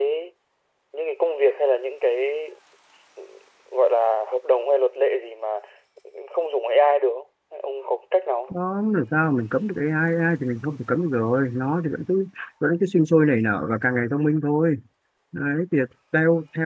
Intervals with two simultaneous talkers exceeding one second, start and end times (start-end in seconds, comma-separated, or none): none